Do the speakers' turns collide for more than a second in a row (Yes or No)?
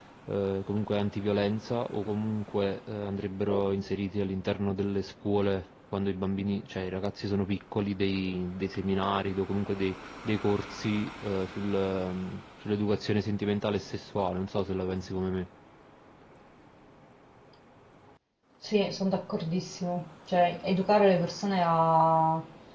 No